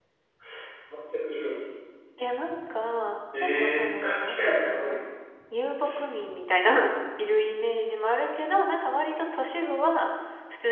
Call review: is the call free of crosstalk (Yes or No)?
No